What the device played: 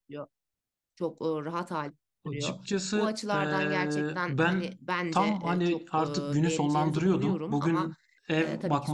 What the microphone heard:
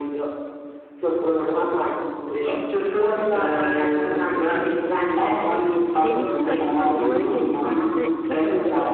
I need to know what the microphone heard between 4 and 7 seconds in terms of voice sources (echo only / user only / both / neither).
both